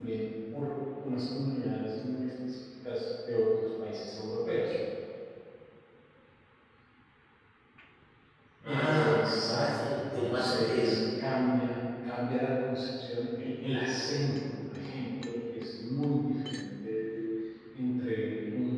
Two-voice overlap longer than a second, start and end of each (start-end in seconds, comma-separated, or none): 8.6-11.0